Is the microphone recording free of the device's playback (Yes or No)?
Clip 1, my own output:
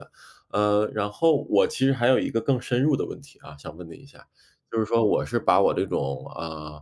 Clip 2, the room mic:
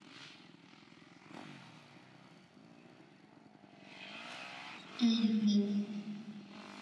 Yes